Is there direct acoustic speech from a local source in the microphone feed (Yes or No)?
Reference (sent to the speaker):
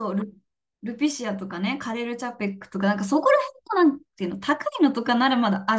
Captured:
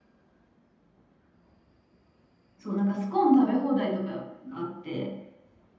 Yes